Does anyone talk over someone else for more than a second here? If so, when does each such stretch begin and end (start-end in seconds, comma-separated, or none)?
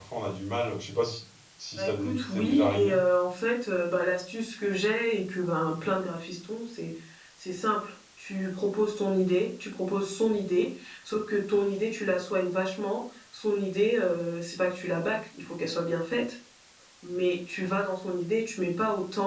1.8-3.0